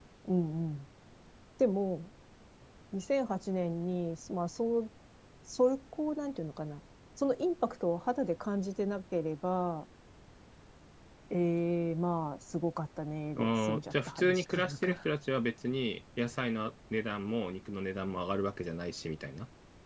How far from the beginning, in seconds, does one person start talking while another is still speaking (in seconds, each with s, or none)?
13.3 s